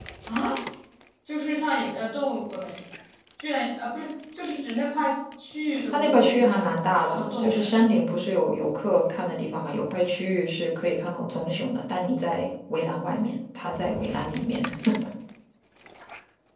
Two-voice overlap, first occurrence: 6 s

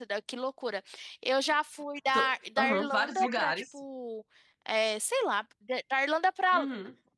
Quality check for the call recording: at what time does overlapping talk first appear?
2 s

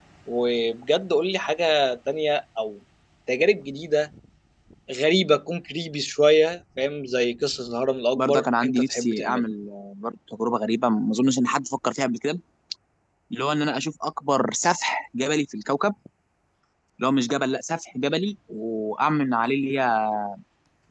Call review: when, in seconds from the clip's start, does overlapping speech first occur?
8 s

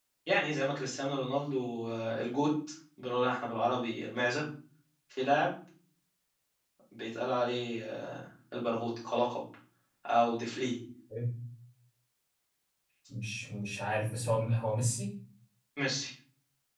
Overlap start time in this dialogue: none

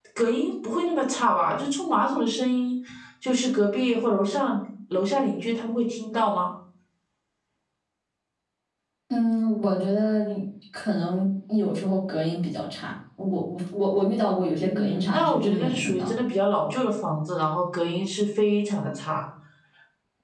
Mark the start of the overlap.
15 s

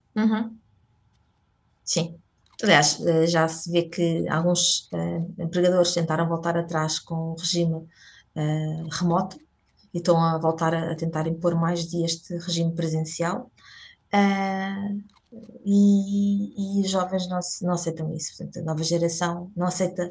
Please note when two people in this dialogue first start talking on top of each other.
none

